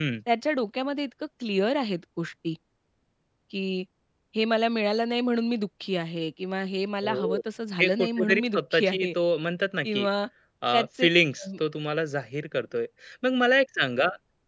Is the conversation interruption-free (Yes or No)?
No